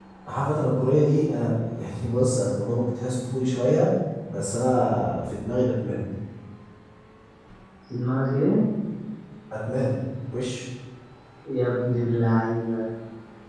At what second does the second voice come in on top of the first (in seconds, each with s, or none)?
none